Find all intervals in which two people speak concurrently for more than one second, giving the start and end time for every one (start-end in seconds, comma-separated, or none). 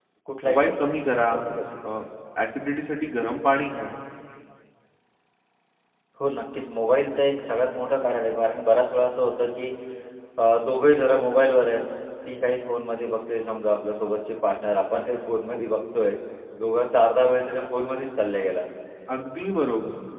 none